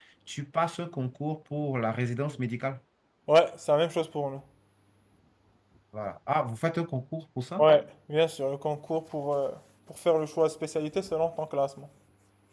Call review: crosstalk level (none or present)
none